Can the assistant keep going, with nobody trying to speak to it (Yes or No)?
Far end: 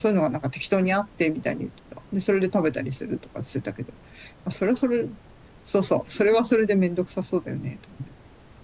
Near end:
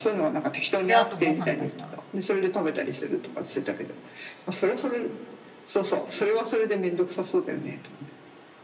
No